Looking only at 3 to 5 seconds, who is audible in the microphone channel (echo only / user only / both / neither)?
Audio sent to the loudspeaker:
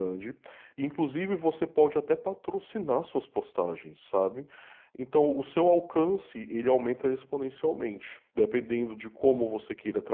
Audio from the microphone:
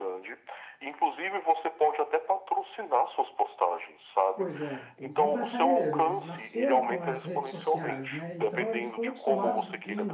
both